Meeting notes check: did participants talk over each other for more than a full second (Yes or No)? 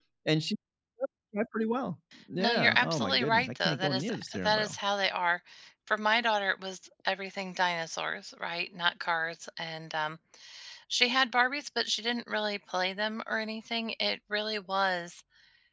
Yes